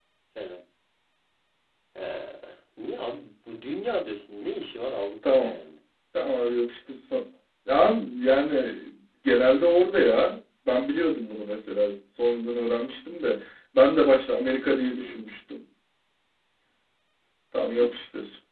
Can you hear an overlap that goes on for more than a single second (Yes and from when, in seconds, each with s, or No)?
No